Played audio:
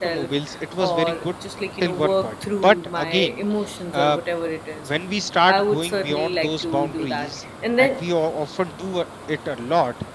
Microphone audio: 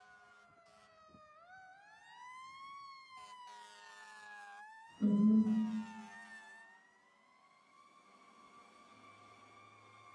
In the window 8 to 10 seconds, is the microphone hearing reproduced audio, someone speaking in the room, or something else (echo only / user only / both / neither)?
neither